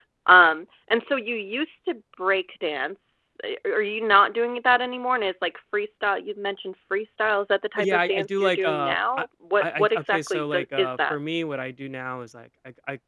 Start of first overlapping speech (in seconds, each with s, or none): 7.8 s